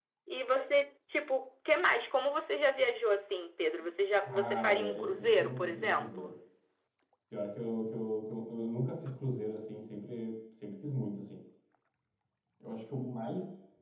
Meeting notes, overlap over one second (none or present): present